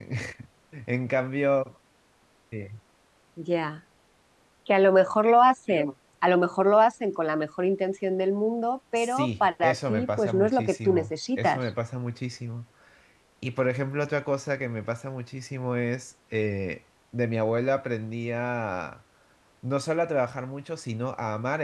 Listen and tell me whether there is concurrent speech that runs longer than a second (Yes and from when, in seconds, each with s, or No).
Yes, from 9.0 s